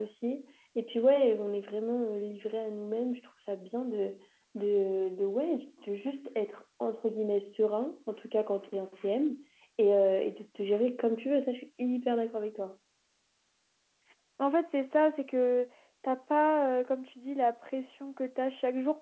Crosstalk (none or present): none